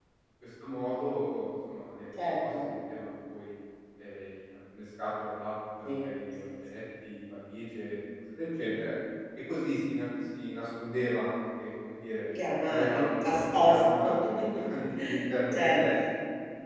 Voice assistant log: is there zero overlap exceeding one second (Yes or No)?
No